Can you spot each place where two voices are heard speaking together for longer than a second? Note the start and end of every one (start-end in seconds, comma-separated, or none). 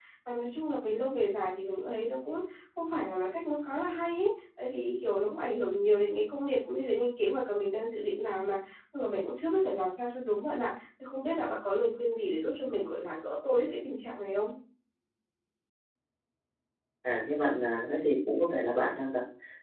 none